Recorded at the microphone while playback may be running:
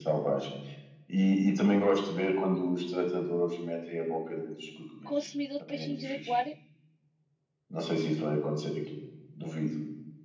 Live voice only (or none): Consumidor de peixinhos de aquário?